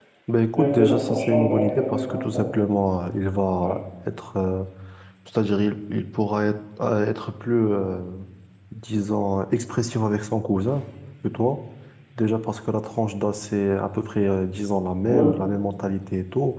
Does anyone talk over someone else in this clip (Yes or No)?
Yes